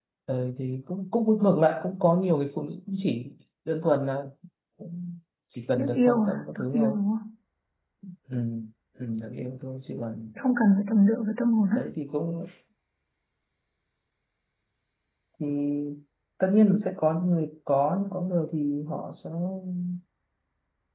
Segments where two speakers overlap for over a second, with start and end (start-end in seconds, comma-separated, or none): 5.8-7.0